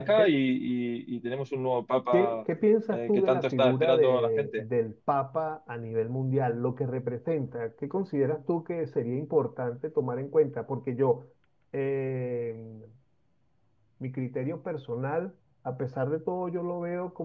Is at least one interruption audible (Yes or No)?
Yes